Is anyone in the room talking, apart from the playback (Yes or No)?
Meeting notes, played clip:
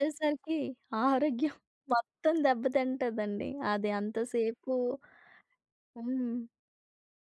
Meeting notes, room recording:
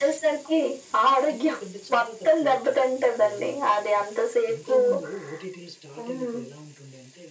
Yes